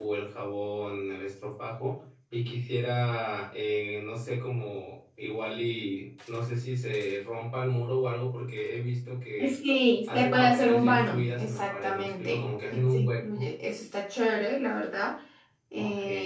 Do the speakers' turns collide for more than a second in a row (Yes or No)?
Yes